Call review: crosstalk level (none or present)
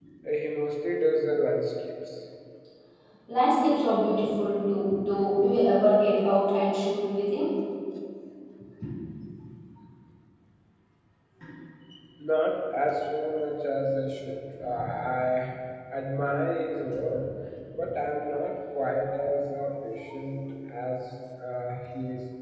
none